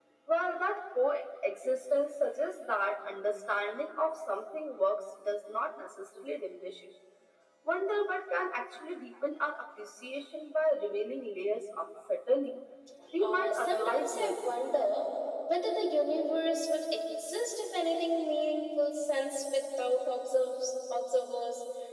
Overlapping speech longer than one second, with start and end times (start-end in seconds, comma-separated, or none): 13.2-14.4